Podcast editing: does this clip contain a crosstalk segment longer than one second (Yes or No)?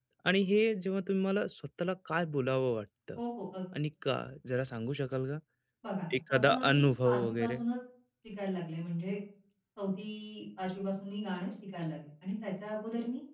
Yes